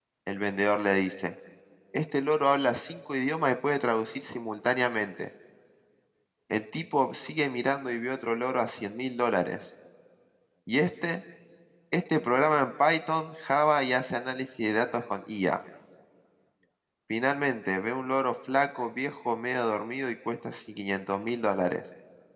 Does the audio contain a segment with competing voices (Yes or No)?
No